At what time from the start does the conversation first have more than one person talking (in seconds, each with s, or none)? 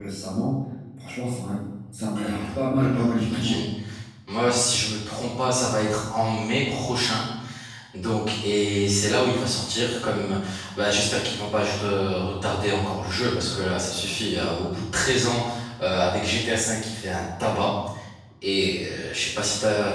2.1 s